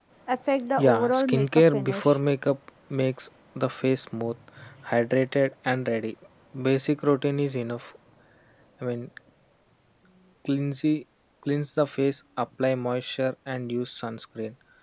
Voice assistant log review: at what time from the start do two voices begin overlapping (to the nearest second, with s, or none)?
1 s